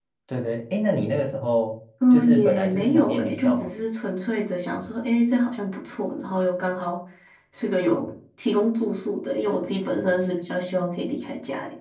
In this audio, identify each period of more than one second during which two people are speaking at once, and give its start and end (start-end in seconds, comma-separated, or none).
2.1-3.7